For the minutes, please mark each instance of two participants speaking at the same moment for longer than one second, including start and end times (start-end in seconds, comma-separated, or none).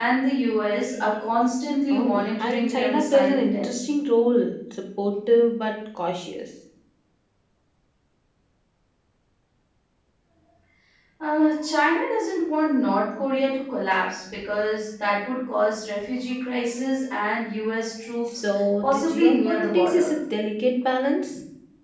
1.9-3.8, 18.8-20.1